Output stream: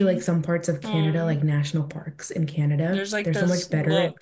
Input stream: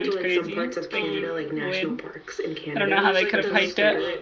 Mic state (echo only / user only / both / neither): both